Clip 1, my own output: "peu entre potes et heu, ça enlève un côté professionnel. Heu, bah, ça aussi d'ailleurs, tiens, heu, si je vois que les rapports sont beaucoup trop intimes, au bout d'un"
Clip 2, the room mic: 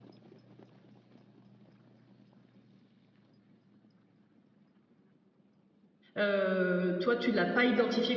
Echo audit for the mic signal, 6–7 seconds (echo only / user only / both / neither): user only